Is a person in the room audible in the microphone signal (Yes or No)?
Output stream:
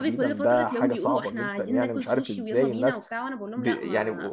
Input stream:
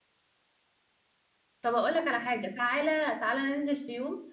Yes